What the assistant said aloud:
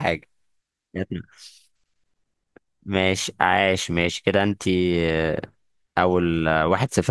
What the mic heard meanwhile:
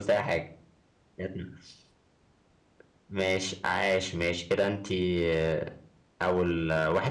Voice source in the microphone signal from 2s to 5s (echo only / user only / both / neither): echo only